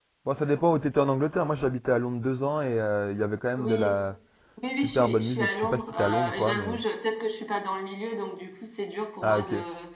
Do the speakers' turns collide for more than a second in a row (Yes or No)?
Yes